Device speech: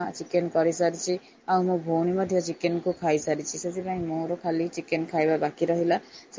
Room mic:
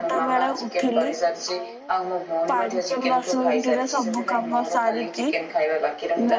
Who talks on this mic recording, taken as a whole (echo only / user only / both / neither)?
both